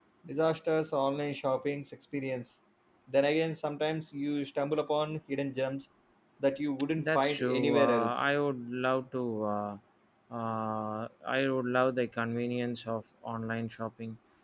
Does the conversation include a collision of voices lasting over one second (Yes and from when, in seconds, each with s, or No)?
Yes, from 7.0 s